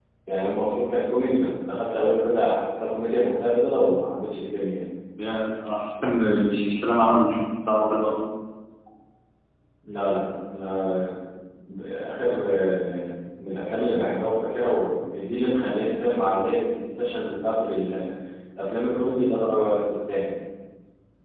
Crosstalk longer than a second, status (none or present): none